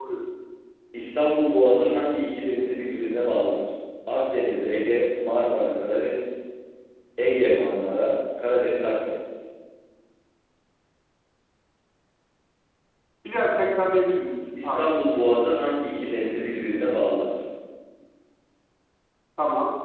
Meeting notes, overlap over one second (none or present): none